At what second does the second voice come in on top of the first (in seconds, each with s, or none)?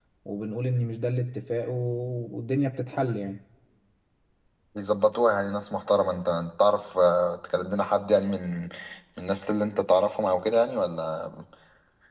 none